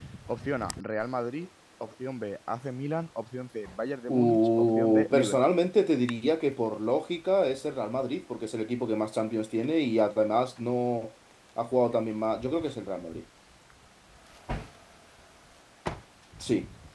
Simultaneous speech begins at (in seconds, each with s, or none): 4.1 s